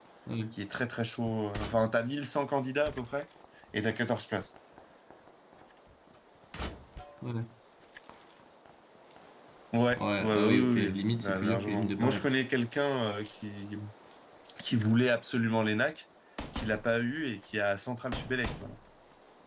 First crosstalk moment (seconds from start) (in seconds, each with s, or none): 10.0 s